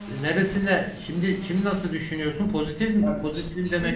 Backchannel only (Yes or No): No